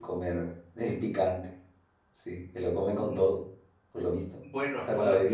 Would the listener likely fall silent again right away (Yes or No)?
No